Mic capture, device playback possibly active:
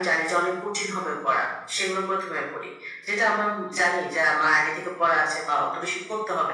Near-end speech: none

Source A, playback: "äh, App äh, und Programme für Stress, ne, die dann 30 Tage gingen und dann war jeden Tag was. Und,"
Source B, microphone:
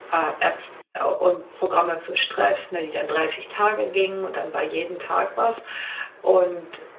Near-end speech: none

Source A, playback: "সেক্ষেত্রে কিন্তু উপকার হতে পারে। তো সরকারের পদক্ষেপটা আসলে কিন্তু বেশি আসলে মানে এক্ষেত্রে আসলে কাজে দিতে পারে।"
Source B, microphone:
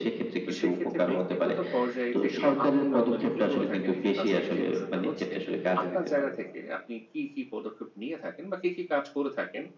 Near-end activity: present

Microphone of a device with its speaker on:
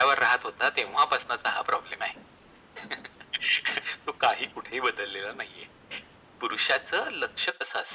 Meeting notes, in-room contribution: none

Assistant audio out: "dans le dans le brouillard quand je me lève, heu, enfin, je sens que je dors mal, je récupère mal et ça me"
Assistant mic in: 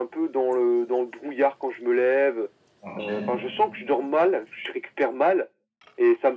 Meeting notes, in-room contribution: present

